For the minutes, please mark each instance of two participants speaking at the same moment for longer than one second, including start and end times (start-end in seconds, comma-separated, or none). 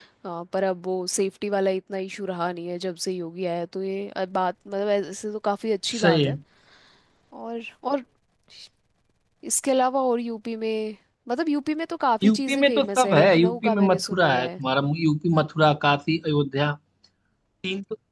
12.2-14.5